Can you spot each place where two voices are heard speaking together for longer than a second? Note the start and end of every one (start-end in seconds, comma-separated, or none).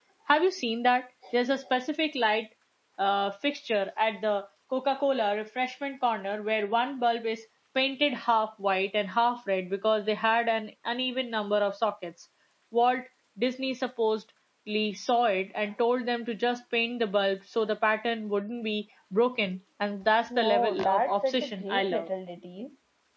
20.4-22.1